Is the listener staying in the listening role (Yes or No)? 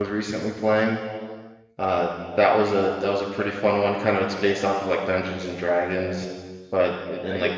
No